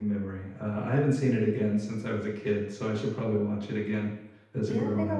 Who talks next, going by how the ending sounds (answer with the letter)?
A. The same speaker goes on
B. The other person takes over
B